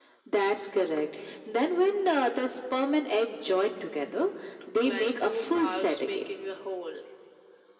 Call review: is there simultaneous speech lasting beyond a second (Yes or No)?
Yes